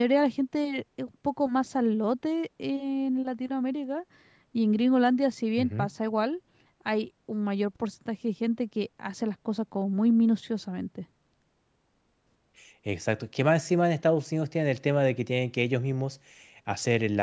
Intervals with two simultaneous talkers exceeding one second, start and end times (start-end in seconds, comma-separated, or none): none